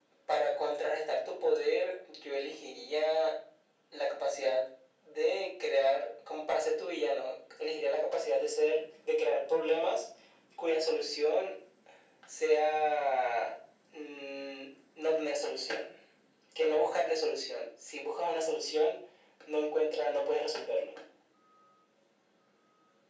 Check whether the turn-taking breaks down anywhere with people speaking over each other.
No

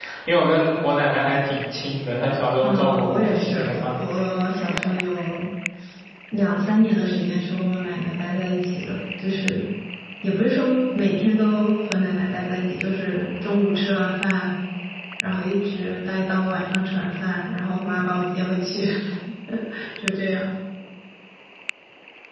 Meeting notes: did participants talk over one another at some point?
Yes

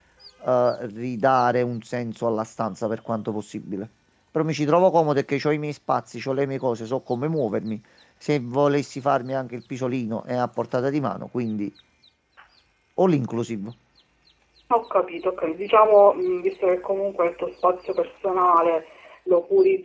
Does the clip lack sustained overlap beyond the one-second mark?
Yes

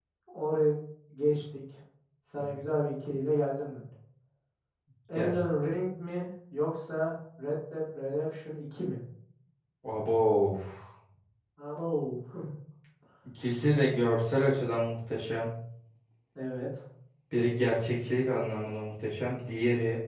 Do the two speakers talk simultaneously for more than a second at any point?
No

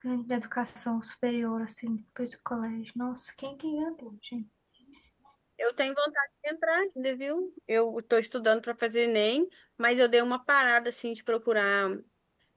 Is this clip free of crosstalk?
Yes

